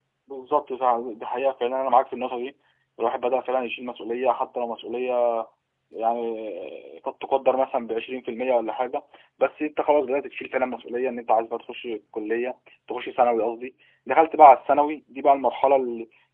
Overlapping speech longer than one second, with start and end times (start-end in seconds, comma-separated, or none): none